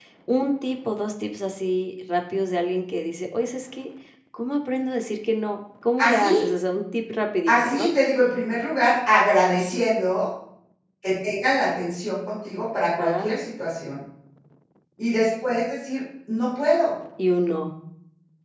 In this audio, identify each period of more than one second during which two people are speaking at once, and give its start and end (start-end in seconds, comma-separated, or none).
none